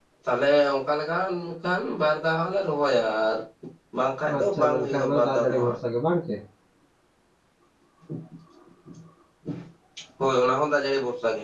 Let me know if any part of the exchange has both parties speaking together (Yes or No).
Yes